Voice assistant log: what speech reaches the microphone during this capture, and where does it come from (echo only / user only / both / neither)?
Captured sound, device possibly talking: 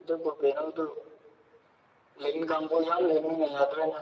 echo only